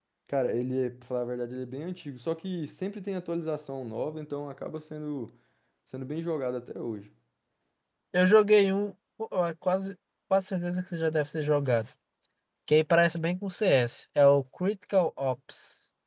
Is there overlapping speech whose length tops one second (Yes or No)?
No